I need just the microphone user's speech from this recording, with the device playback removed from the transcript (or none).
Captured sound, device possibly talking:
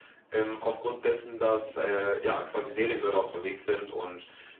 Mhm.